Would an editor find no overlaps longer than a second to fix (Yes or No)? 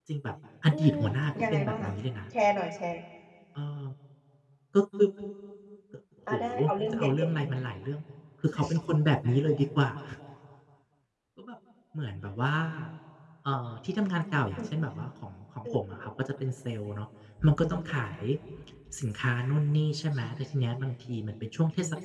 Yes